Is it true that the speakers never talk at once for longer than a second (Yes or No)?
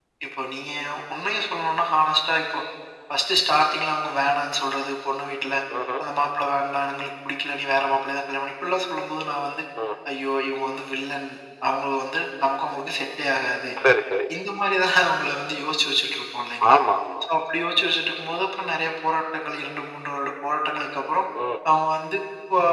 Yes